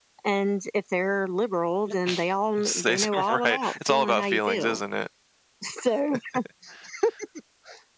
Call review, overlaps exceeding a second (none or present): present